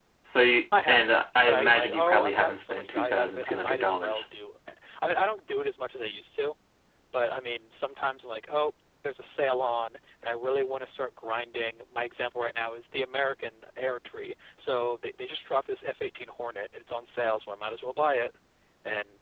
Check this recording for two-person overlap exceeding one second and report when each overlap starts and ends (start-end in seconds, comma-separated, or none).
0.9-4.3